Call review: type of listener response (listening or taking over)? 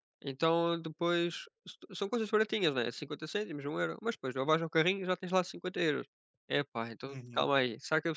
listening